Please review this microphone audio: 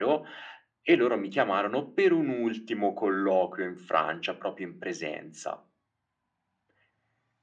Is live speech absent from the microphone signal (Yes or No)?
Yes